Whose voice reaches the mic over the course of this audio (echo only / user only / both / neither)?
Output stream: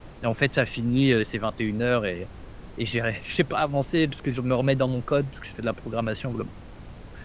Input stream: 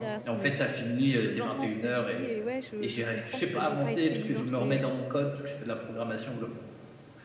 both